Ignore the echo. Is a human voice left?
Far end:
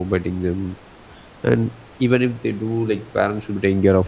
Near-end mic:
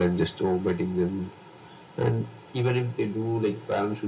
No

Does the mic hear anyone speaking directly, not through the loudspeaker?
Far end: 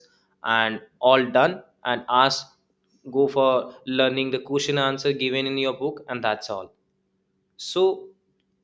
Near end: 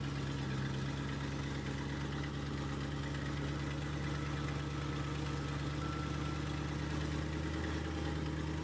No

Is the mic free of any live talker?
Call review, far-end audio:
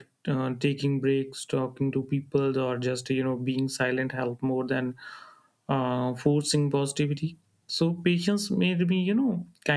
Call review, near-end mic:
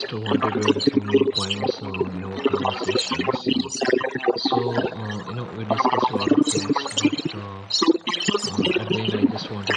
No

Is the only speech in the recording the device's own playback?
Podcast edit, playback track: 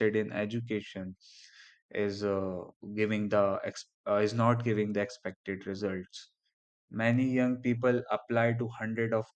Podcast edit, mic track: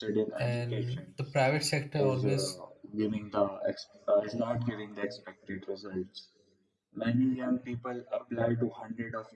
No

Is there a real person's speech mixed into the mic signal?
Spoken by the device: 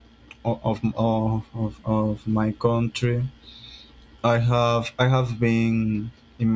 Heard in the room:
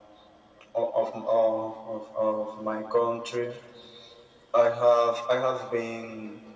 No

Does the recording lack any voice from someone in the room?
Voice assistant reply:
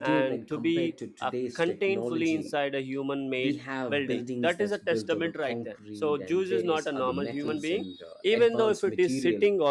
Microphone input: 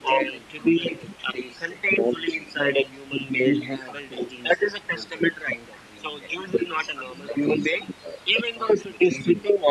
Yes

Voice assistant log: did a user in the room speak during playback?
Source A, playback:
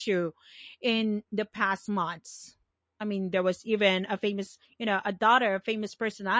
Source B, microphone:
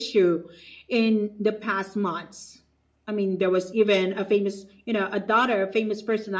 No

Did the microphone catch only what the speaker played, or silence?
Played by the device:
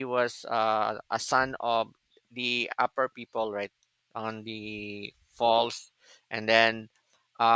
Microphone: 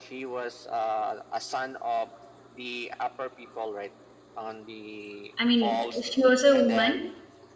No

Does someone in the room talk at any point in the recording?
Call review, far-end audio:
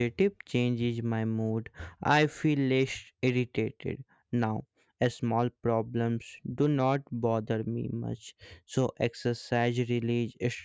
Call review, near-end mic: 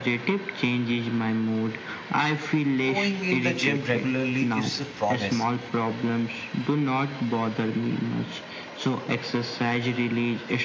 Yes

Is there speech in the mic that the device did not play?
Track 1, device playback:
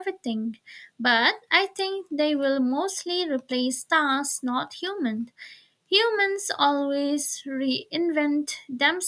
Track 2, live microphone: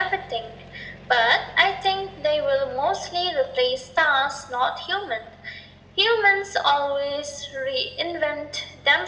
No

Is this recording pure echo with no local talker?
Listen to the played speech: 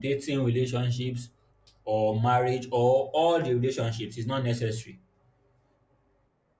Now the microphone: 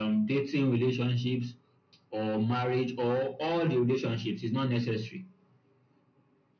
Yes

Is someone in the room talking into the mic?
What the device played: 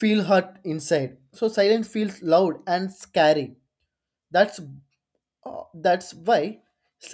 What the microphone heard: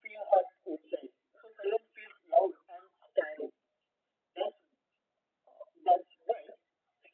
No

